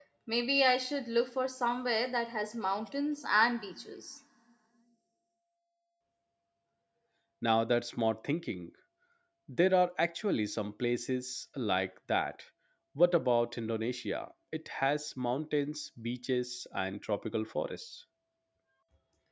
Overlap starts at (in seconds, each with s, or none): none